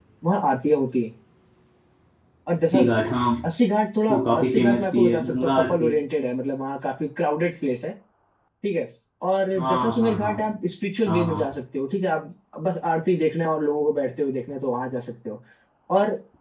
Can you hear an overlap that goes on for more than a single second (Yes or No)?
Yes